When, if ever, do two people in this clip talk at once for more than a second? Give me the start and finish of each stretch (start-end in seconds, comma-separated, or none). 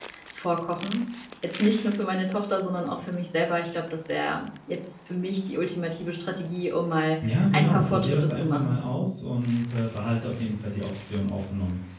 7.2-8.8